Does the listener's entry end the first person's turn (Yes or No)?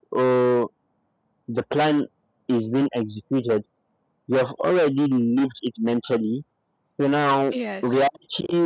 No